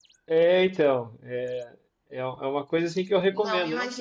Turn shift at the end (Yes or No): Yes